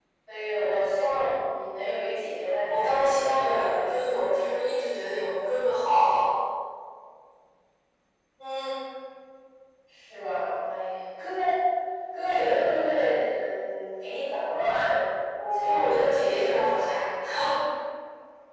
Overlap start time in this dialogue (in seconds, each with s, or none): 2.7 s